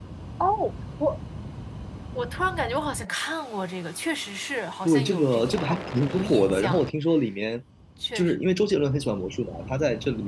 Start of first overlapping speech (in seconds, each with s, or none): 4.8 s